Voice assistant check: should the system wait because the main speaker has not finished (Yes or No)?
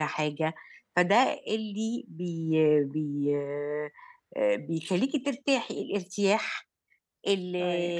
Yes